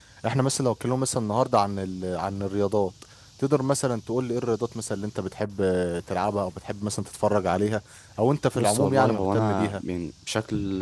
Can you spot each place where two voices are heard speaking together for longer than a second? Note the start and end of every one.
8.6-9.8

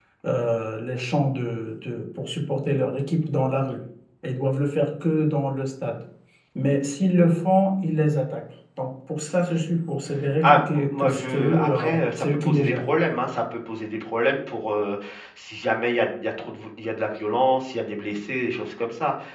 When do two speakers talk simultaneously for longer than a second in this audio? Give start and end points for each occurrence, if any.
10.4-12.8

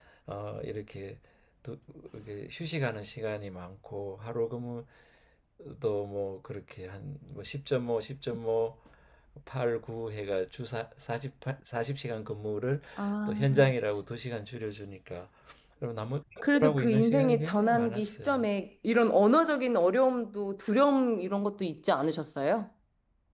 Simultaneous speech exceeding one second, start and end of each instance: 16.6-18.4

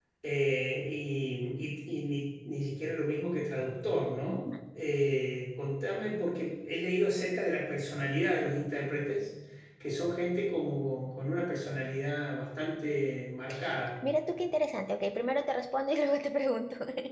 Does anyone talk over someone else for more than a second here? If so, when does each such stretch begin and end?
none

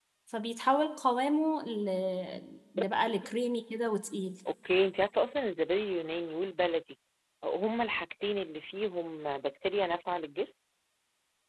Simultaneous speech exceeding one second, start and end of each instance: none

